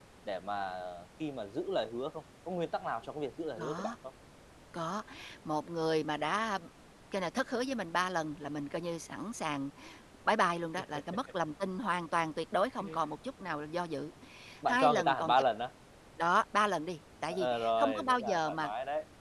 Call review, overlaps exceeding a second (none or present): present